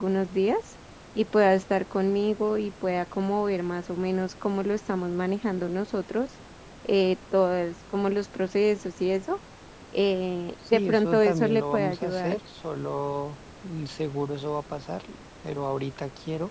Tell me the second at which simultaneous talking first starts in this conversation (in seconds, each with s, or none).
10.7 s